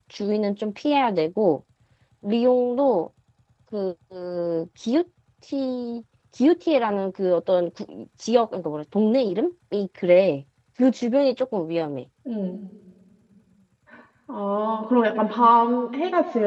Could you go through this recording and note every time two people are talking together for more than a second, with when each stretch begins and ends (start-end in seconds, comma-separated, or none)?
none